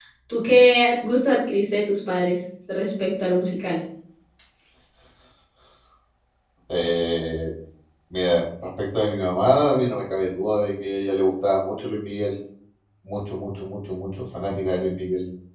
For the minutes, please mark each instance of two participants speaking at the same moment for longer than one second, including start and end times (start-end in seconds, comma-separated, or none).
none